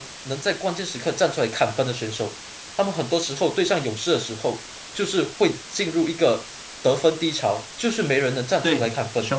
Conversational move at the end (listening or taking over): taking over